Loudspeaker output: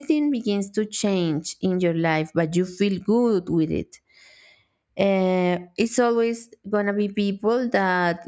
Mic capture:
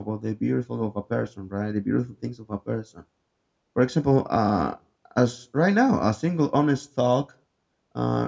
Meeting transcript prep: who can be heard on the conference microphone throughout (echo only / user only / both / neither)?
user only